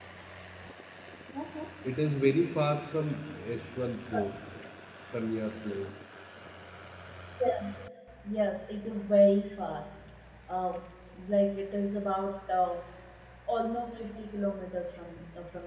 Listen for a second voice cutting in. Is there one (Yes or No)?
No